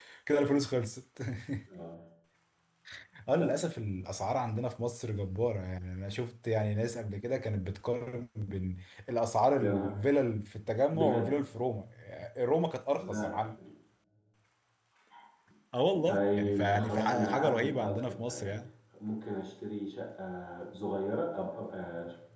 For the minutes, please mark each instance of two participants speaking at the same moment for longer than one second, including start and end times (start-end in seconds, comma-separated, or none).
16.1-18.6